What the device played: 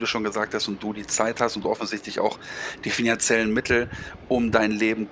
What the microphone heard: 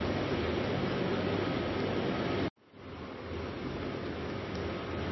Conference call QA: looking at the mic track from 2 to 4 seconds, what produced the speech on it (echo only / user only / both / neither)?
neither